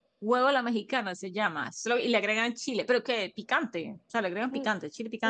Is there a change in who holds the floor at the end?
Yes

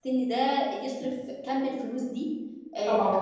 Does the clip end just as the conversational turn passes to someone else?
No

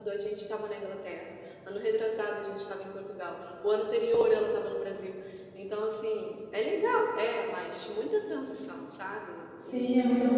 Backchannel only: No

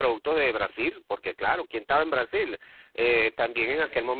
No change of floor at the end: Yes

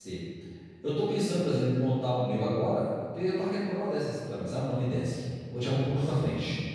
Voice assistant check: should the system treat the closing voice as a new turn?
No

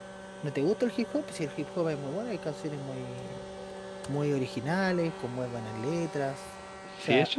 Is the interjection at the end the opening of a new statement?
Yes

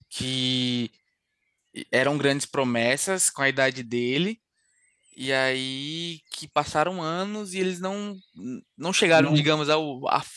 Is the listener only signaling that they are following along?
Yes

